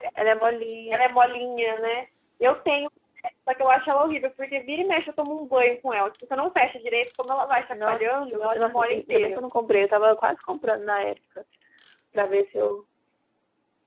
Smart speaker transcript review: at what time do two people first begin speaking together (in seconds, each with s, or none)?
7.7 s